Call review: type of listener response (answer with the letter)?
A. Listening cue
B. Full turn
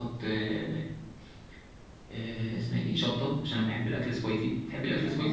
B